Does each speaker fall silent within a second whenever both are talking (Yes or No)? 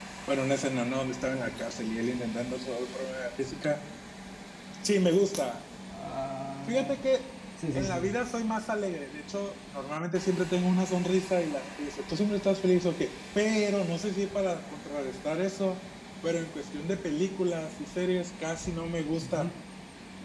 Yes